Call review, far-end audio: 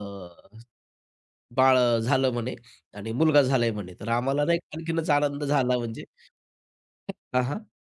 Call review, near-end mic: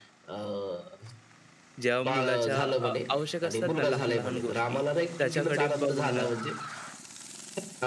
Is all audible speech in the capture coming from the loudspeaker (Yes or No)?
No